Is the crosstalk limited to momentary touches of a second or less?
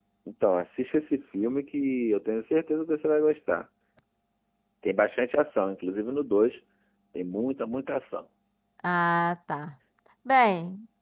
Yes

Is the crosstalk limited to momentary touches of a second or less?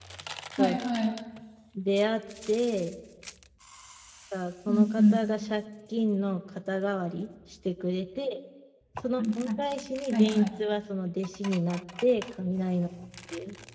Yes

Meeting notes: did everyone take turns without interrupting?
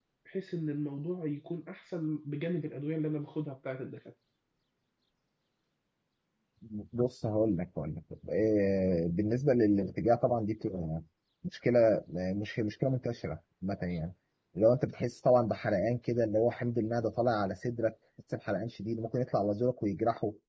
Yes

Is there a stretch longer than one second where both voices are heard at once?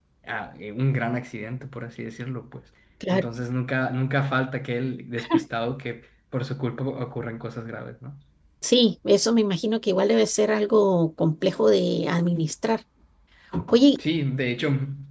No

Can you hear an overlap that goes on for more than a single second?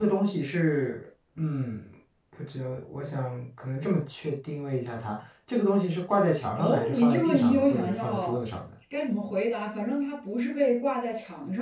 Yes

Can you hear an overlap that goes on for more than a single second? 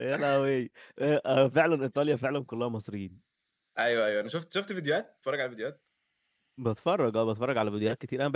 No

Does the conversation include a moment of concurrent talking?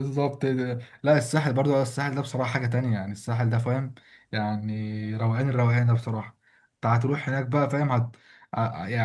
No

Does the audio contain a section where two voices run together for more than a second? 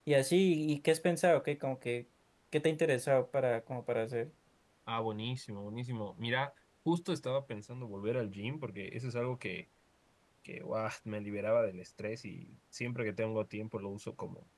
No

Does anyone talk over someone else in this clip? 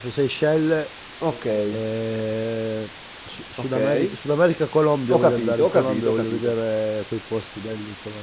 Yes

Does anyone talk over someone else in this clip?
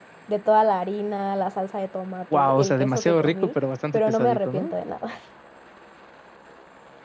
Yes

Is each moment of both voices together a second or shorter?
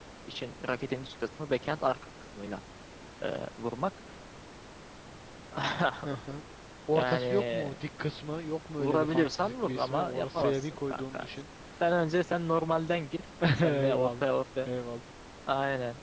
No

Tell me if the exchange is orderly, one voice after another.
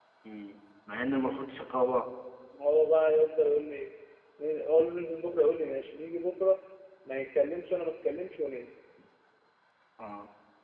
Yes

